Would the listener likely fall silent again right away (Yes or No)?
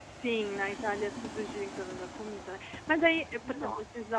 Yes